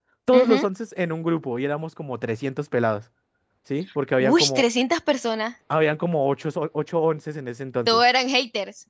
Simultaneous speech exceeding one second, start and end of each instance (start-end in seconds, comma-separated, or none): none